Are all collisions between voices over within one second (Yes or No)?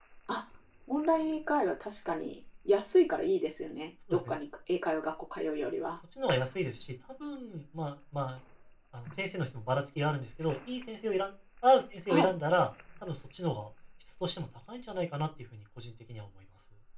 Yes